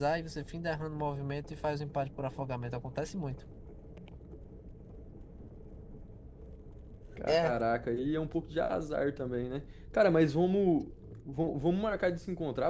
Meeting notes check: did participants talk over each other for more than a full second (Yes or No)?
No